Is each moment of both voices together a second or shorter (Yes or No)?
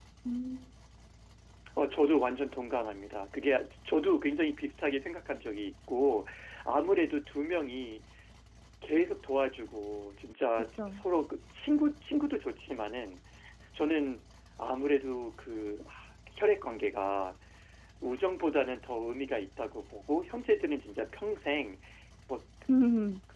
Yes